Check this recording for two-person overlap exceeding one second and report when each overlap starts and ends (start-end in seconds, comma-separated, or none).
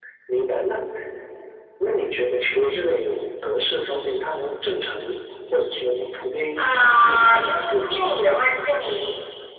6.6-8.1